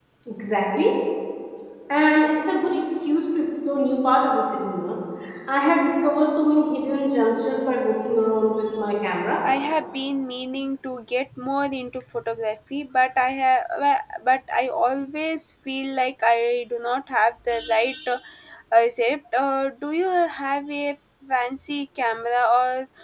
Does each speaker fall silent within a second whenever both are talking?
Yes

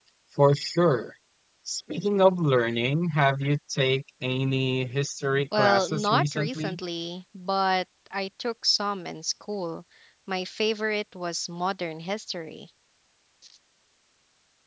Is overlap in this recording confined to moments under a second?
No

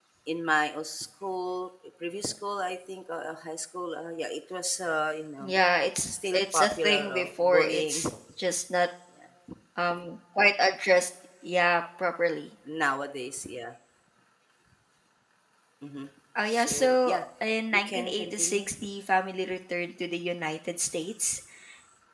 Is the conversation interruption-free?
No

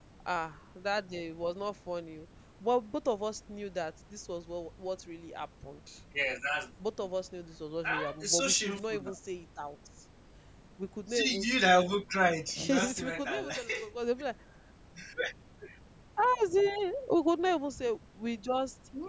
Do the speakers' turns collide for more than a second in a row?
Yes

